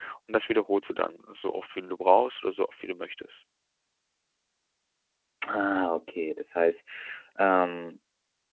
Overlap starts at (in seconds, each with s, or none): none